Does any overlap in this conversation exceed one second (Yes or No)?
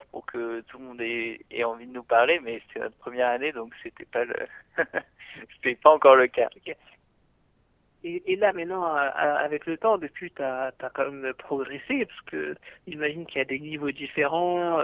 No